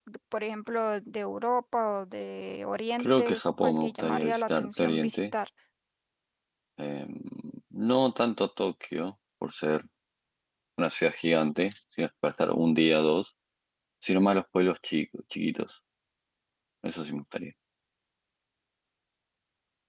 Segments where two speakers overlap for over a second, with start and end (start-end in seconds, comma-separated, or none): 3.0-5.2